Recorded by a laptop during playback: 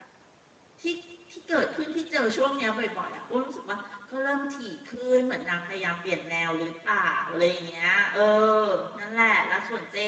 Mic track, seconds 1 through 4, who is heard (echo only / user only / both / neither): user only